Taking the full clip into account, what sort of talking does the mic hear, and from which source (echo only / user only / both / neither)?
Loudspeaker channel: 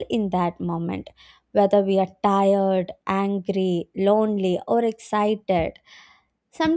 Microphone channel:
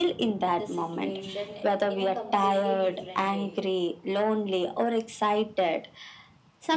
both